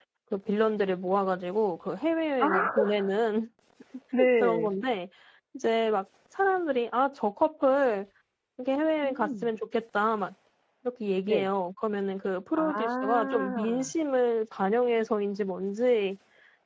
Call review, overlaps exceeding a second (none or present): present